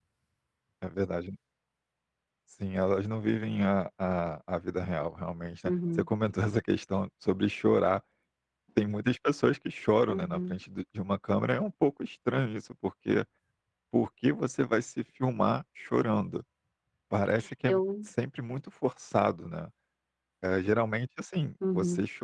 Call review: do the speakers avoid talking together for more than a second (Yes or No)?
Yes